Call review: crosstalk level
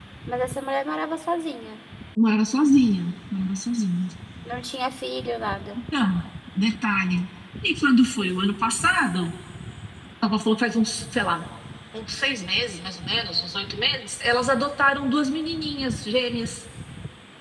none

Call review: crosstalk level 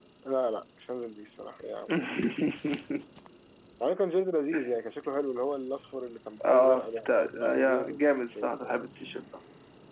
present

